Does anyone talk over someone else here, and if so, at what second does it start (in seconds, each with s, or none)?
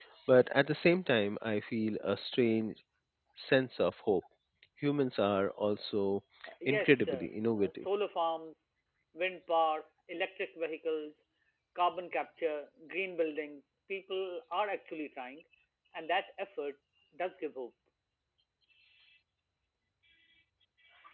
6.6 s